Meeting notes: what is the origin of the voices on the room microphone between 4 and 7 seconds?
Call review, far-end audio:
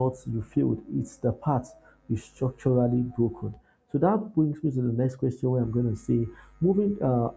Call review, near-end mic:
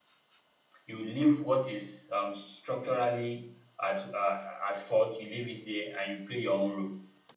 user only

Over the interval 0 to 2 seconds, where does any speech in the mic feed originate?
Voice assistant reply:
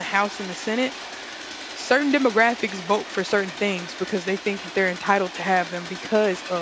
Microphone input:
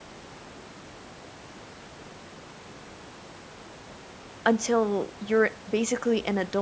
neither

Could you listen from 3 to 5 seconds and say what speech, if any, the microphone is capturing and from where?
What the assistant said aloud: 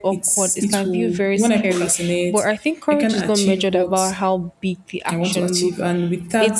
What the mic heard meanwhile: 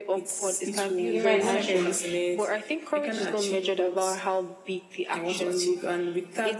echo only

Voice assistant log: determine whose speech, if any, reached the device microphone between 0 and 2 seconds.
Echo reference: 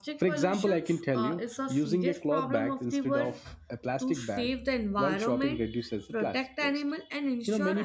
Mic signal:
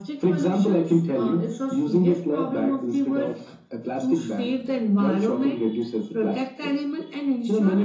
echo only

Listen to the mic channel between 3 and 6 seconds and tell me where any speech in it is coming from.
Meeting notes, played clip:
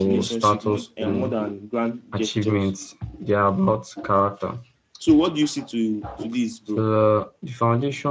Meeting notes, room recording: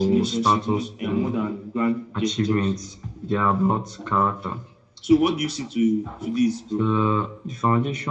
echo only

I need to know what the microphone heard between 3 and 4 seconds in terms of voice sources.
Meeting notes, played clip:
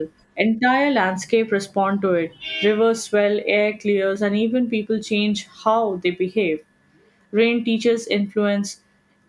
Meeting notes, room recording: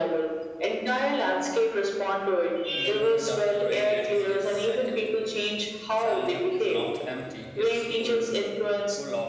both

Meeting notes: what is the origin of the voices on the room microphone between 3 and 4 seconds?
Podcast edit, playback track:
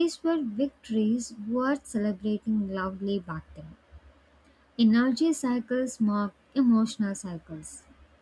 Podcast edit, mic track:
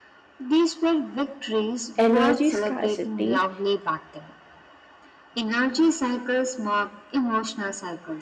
both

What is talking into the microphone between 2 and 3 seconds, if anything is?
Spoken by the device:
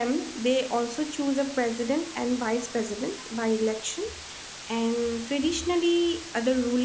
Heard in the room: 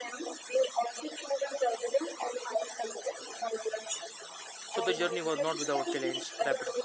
echo only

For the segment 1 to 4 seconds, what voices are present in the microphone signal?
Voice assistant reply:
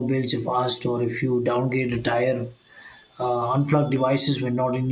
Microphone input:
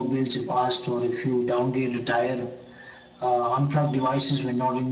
echo only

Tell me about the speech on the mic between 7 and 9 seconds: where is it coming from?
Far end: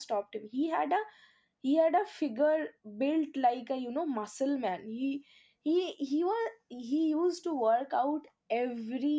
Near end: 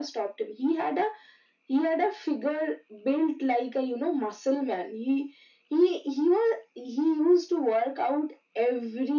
echo only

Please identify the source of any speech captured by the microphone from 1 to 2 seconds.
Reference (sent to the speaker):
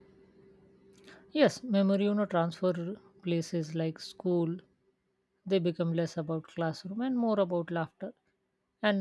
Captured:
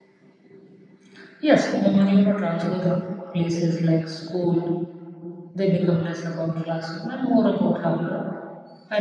echo only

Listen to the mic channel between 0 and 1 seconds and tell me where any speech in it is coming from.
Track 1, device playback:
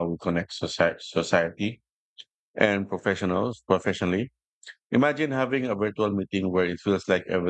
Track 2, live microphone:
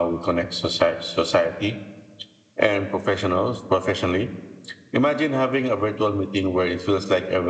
echo only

